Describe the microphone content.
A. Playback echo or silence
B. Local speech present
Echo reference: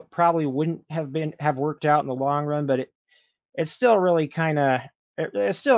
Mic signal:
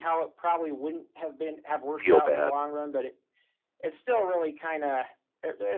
B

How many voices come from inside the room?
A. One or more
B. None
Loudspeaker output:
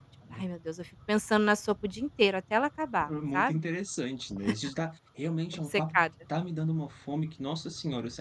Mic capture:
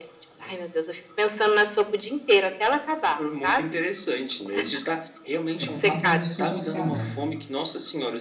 A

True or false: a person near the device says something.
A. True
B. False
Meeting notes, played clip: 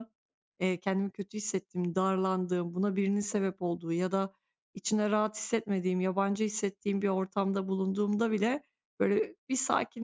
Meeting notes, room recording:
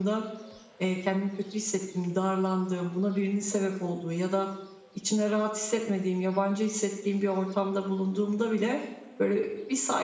B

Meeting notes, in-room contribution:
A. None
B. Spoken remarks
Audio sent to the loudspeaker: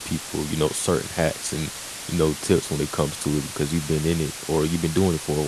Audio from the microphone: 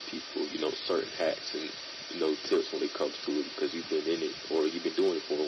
A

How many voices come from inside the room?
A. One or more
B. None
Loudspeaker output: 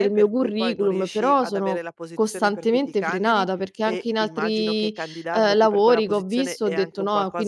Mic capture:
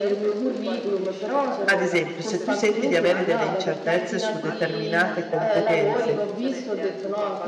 A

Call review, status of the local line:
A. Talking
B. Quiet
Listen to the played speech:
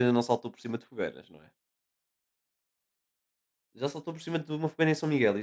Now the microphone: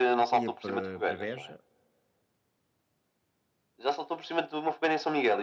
A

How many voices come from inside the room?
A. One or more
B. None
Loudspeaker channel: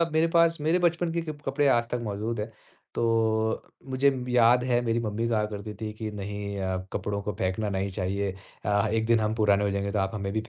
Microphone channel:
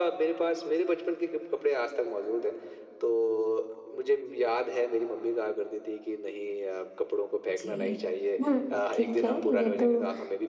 A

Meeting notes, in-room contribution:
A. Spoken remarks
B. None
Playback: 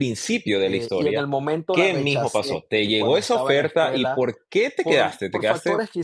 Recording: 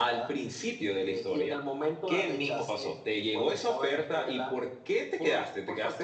B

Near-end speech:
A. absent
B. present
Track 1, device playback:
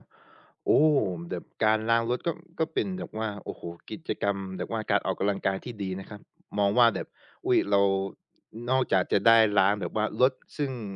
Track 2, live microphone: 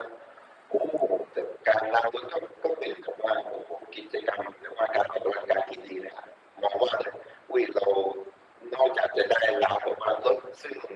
A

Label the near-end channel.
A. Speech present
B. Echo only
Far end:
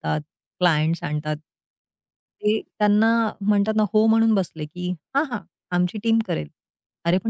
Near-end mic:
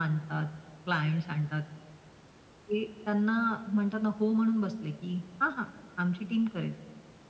B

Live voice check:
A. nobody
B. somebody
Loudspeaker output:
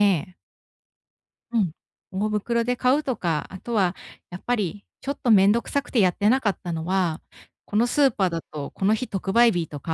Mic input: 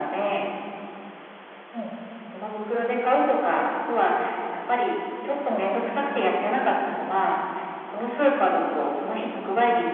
A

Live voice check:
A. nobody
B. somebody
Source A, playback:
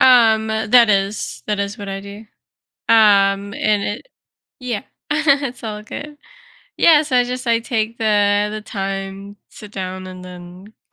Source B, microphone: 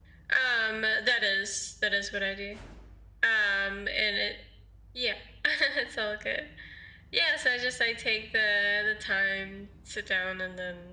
A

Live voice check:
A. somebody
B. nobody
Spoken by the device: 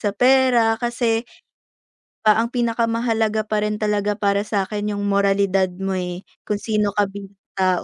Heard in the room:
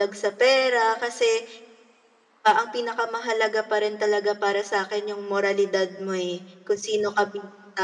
B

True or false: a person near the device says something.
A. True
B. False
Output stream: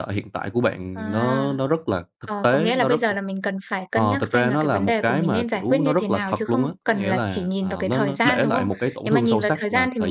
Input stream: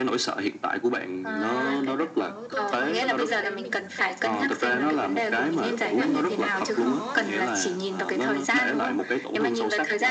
A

